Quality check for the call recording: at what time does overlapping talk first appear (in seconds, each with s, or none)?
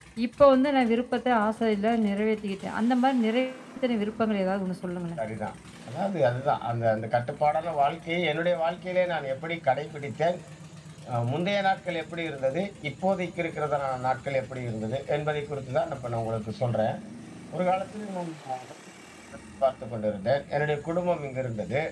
none